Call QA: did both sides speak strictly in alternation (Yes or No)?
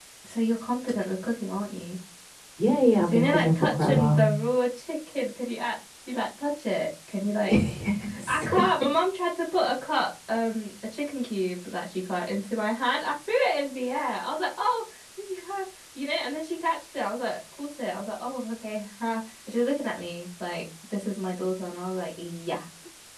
No